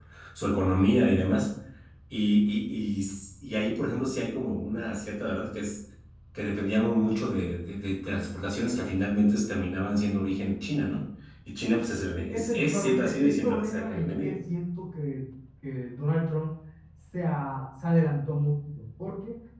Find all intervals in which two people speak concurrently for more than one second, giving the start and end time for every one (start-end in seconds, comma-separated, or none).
12.3-14.4